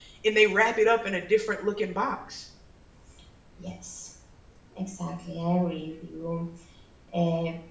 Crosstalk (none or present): none